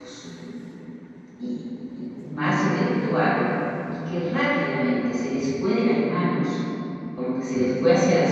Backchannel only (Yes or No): Yes